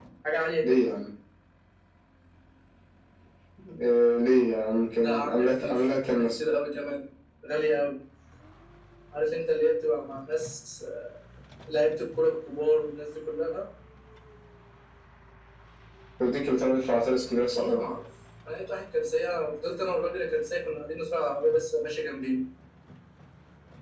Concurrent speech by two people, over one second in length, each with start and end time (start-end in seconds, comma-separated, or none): 5.0-6.4